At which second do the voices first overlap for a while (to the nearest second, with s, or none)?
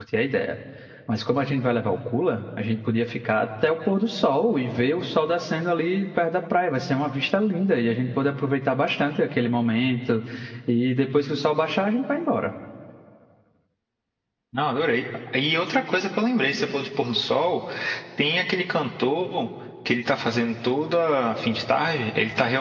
none